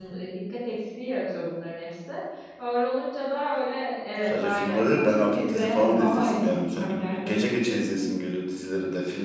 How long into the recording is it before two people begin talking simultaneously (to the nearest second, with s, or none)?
4 s